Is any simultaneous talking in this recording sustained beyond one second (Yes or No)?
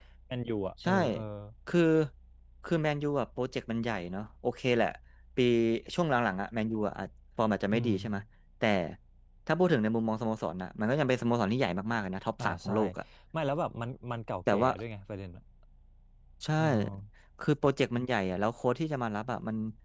No